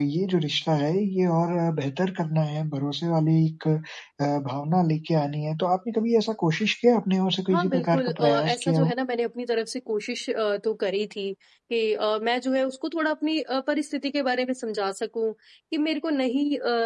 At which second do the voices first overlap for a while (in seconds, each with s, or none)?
7.5 s